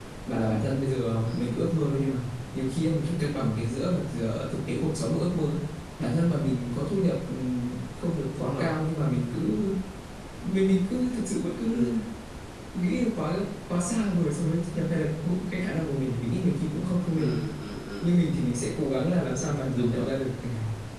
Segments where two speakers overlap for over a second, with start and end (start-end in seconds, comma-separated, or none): none